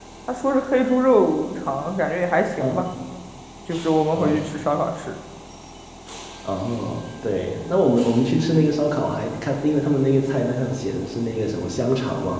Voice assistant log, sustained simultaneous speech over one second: none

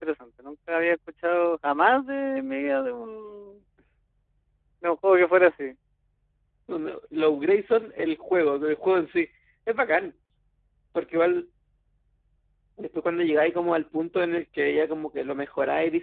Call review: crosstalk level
none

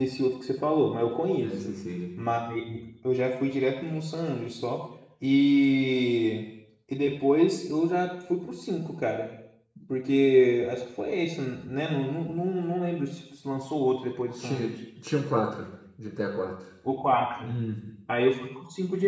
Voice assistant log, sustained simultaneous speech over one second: none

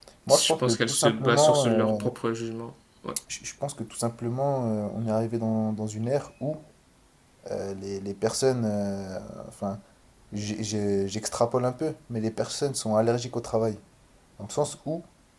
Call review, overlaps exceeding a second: present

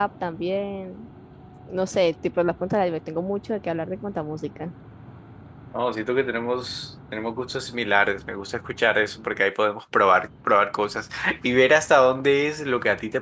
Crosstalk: none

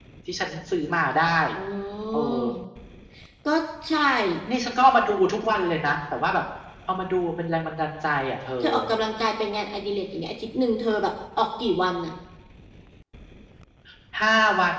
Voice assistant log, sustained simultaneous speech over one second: none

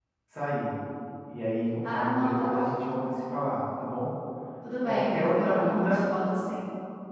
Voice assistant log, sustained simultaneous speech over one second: present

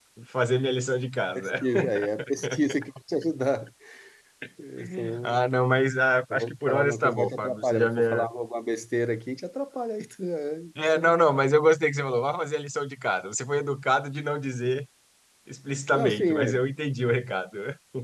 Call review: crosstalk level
present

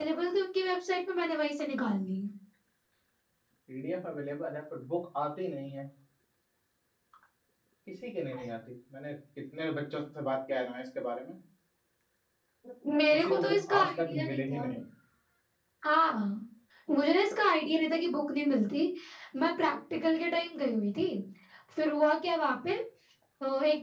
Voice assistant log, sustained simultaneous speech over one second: present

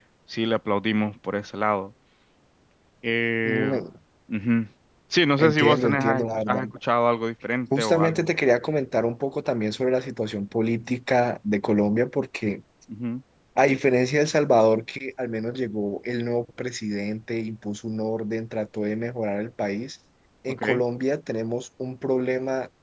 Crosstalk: present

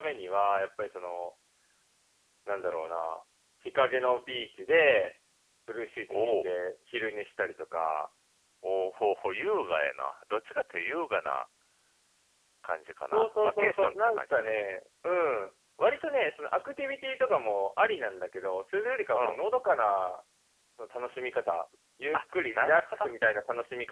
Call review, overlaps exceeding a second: present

